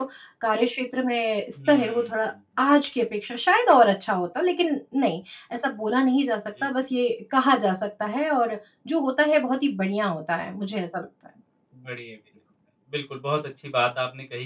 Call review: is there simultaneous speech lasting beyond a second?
No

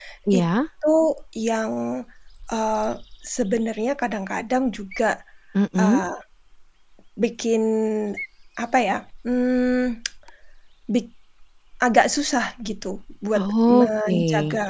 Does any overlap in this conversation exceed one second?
Yes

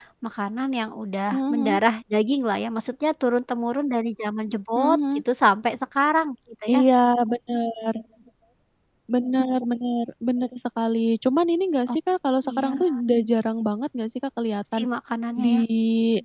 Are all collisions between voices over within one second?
Yes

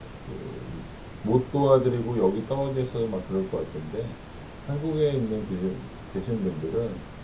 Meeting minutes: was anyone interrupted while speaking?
No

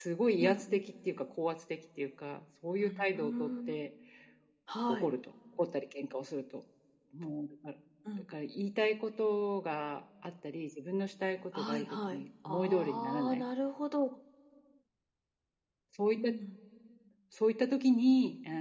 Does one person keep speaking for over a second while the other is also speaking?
Yes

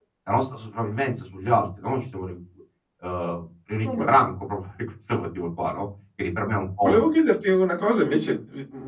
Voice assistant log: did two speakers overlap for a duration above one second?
No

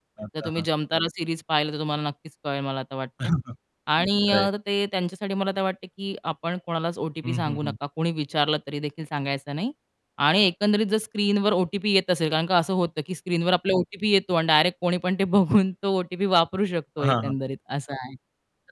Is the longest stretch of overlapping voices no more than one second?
Yes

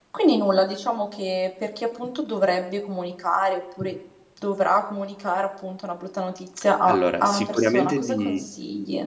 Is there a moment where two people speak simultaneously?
Yes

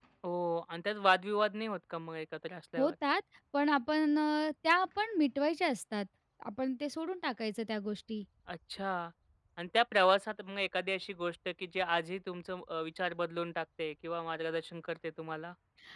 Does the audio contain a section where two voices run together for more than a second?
No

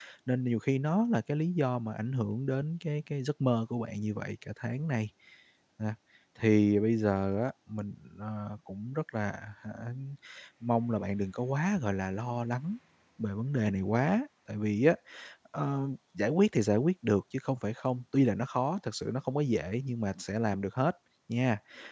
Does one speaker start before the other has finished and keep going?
No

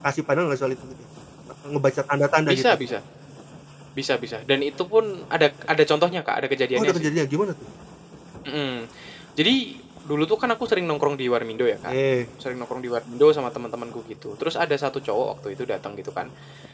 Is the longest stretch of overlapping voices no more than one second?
Yes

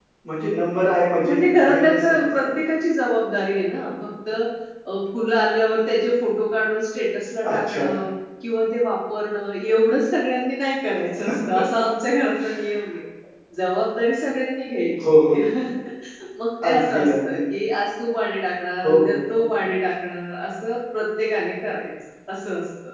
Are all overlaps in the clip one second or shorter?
No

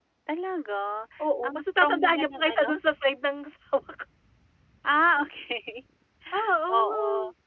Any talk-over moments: Yes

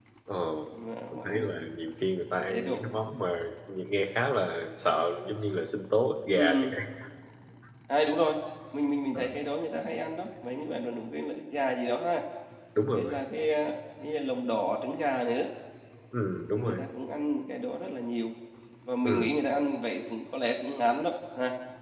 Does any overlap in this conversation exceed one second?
No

